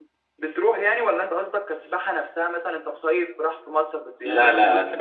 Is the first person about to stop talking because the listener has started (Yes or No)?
Yes